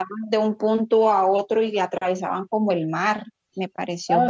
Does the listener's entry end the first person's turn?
Yes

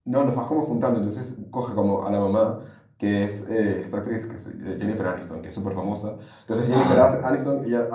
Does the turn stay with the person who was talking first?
Yes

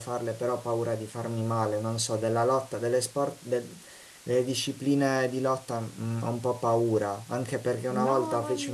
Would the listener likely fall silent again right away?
Yes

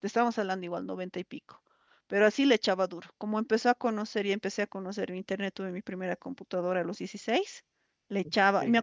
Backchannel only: Yes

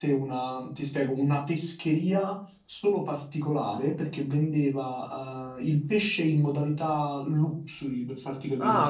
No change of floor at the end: Yes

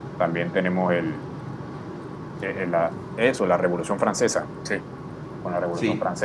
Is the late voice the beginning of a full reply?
No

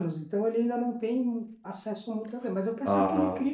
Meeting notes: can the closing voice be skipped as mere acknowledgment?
Yes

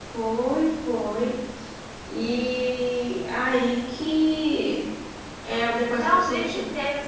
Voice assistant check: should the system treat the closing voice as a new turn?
Yes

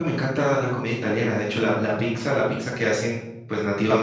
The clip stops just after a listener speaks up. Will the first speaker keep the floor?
No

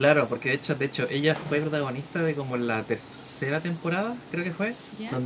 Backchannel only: Yes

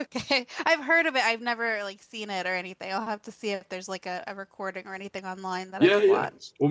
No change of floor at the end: No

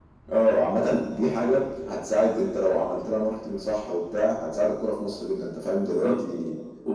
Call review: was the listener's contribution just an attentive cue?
No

